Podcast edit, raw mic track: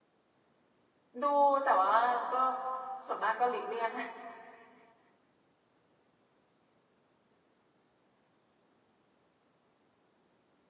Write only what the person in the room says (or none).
ดูแต่ว่าก็ส่วนมากก็หลีกเลี่ยง